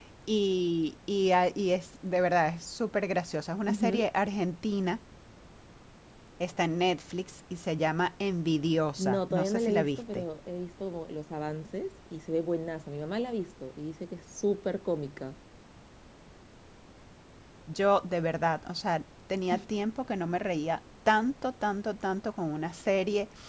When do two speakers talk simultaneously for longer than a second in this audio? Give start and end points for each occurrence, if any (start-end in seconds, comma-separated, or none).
9.0-10.2